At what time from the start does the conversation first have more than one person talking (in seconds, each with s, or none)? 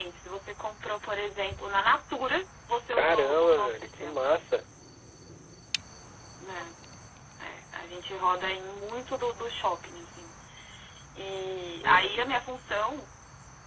2.9 s